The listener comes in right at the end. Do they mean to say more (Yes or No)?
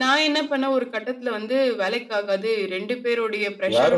Yes